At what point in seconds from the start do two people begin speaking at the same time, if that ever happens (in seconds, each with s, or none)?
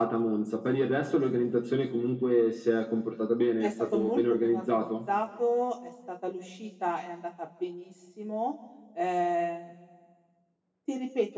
3.6 s